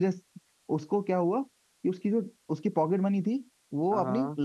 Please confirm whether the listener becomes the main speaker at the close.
No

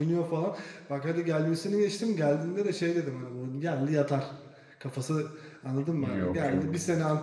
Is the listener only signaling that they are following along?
Yes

